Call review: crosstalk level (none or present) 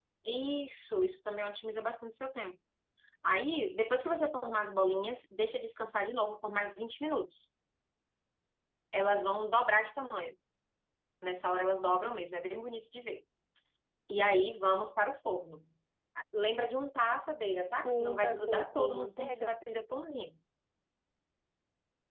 present